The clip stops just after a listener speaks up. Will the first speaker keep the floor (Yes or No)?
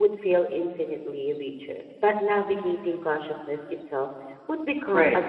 No